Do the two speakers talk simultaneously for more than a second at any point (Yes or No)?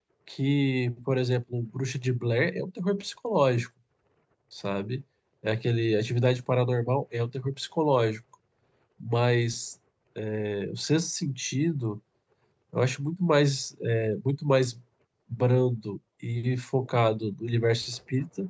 No